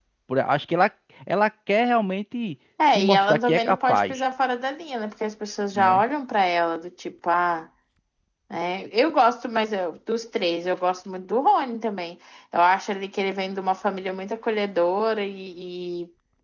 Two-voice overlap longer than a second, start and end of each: 2.9-4.2

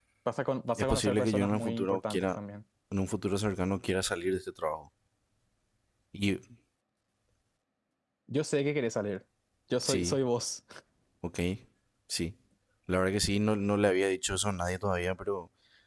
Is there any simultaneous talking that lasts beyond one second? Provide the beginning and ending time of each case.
0.8-2.4

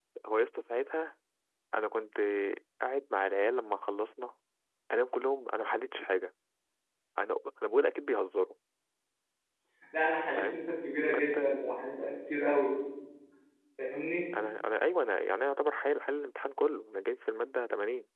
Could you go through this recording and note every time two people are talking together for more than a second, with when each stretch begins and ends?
10.3-11.5

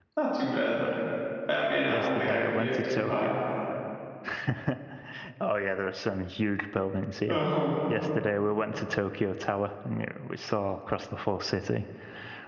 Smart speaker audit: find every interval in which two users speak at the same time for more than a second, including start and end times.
1.9-3.3

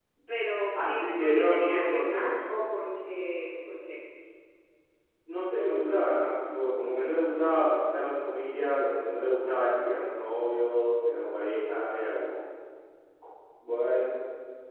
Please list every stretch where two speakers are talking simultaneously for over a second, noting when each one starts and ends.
0.7-2.4

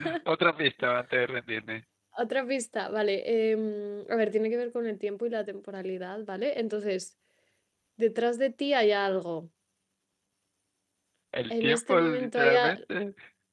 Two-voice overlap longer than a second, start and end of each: 11.5-12.8

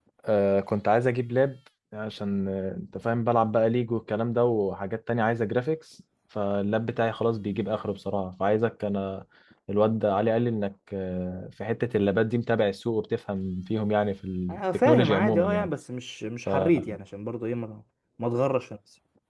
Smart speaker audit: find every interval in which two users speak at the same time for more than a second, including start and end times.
14.5-15.7

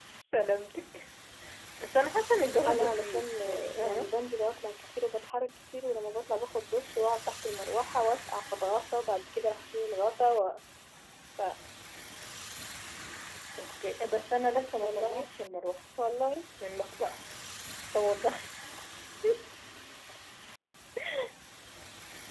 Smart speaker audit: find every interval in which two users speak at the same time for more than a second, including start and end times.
2.6-4.1

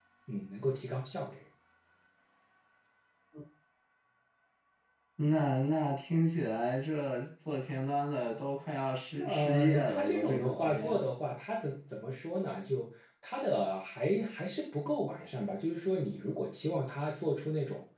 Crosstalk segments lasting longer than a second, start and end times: 9.2-11.0

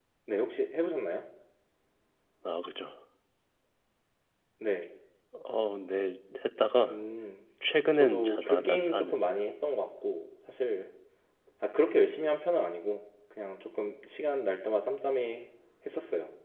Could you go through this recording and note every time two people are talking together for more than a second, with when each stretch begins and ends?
7.9-9.3

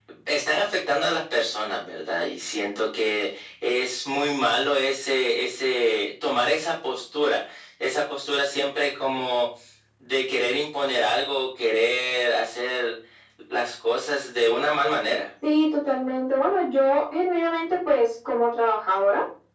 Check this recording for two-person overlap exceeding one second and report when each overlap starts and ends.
none

